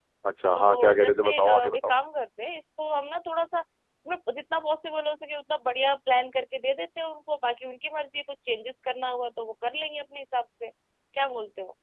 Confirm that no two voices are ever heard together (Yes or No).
No